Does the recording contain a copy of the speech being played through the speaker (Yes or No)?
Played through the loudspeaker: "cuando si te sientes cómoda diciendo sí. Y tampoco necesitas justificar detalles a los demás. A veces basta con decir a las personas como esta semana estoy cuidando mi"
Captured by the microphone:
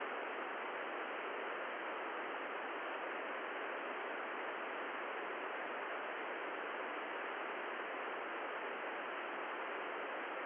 No